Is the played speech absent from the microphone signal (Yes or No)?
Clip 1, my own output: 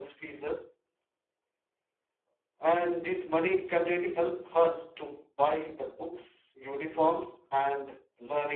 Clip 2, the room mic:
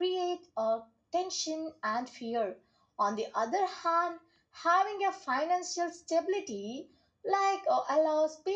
Yes